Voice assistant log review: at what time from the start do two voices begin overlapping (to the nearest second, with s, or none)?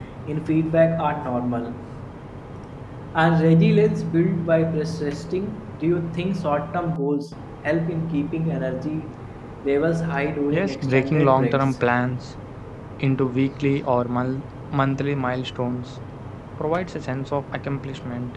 11 s